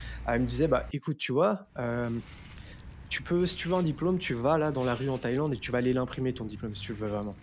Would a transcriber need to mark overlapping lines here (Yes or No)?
No